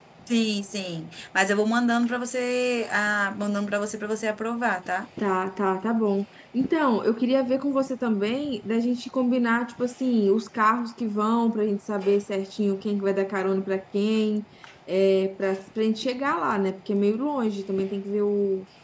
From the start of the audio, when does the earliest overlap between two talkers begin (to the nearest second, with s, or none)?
none